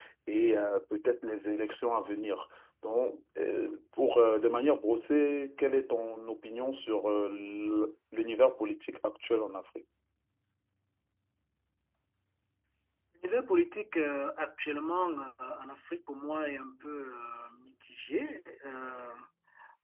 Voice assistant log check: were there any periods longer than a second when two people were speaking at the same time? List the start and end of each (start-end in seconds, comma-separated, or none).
none